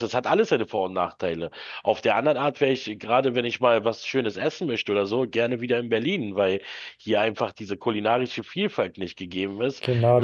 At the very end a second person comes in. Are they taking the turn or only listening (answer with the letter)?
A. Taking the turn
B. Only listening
A